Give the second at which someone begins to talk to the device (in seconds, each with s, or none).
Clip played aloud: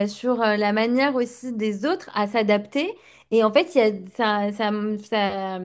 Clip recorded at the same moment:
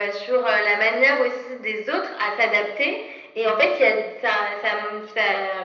none